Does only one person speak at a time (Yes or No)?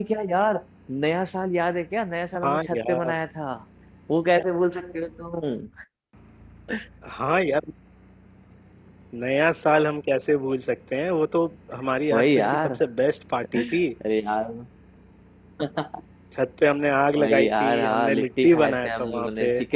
No